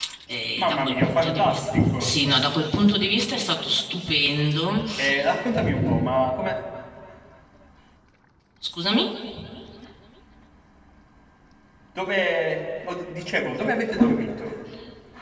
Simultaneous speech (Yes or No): Yes